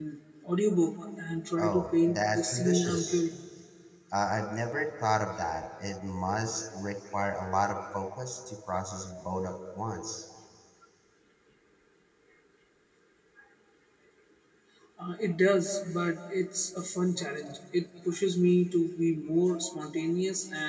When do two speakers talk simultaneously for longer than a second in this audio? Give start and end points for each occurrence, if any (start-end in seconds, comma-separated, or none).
1.6-3.2